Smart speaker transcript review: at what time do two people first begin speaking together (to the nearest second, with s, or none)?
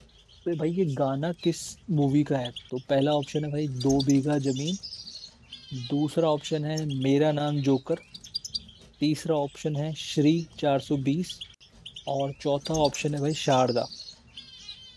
none